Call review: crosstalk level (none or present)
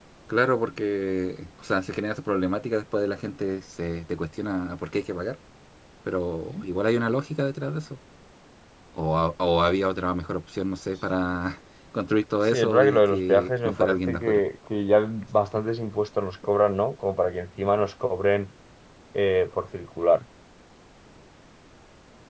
present